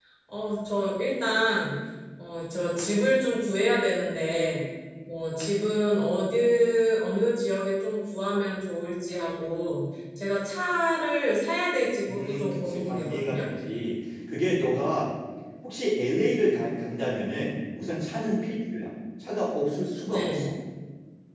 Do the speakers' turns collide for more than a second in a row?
Yes, from 12.1 s

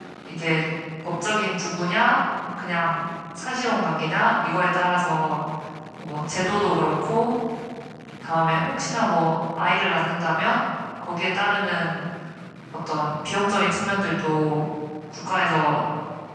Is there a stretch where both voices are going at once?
No

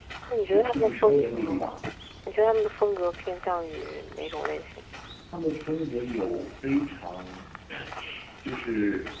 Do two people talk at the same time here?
Yes, from 0.5 s

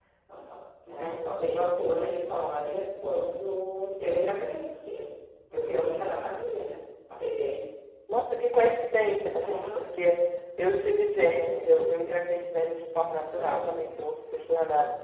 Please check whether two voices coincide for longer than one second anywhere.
No

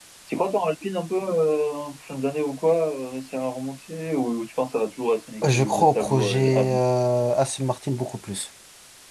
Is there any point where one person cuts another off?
Yes, from 5.4 s

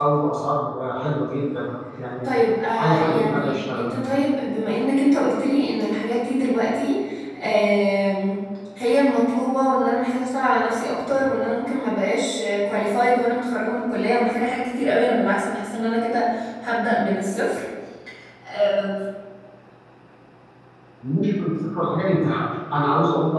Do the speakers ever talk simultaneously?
Yes, from 2.8 s

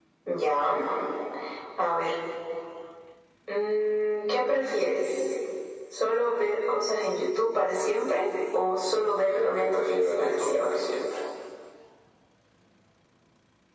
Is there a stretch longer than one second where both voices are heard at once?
Yes, from 9.3 s

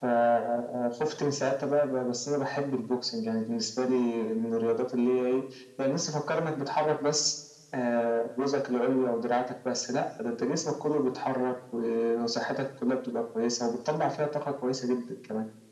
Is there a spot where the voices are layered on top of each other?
No

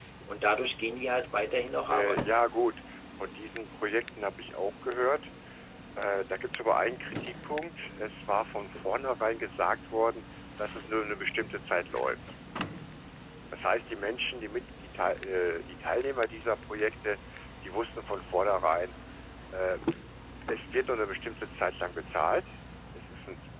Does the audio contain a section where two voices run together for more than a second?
No

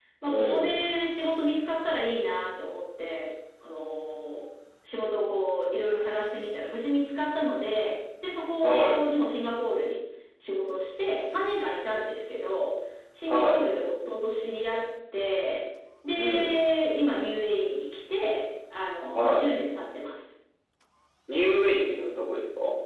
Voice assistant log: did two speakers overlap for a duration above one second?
No

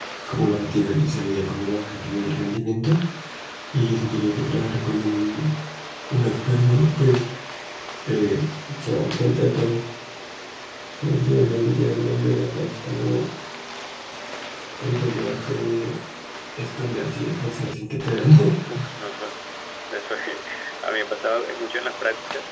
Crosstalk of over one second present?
No

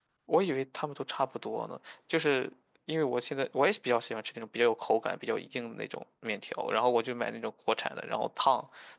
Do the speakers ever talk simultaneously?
No

